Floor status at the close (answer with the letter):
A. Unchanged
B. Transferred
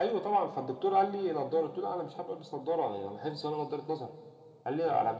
A